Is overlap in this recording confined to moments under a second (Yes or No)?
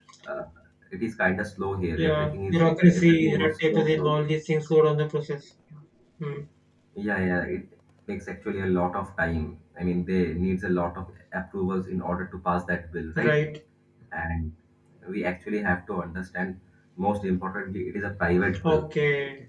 No